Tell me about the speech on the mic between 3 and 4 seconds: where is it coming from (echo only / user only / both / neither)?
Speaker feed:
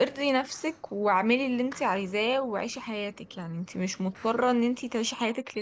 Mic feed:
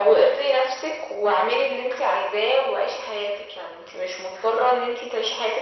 echo only